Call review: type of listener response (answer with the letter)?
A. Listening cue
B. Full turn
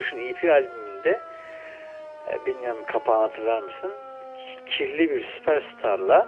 A